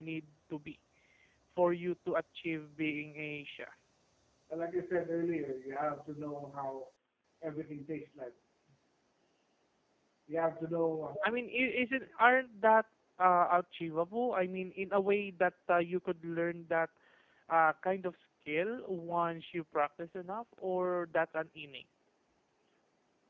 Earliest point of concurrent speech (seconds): none

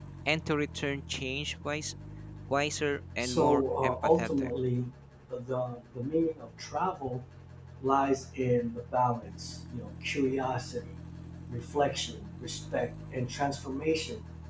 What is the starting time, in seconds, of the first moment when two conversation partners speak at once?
3.2 s

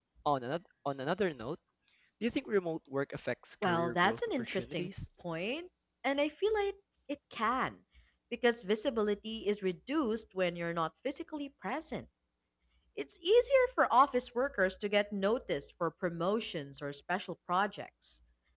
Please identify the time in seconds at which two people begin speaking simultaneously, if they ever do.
3.6 s

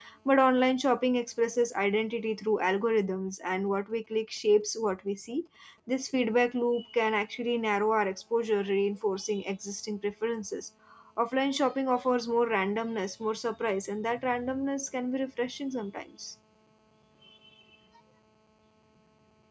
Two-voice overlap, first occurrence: none

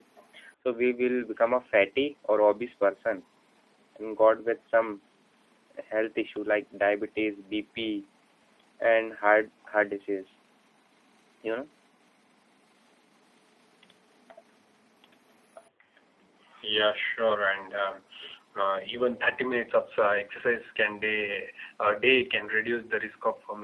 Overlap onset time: none

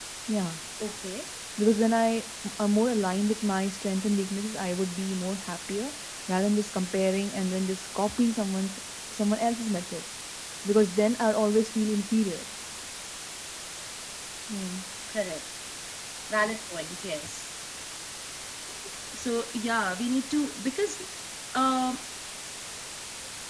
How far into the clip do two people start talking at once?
none

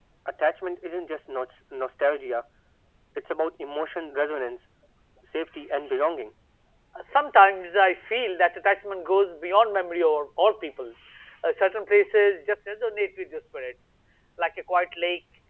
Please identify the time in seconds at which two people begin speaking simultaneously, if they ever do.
none

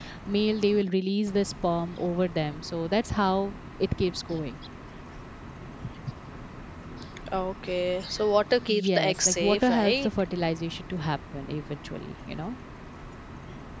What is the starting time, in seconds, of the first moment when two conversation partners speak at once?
8.7 s

